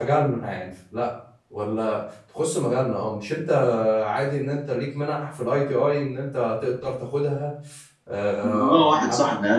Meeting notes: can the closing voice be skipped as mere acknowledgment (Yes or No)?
No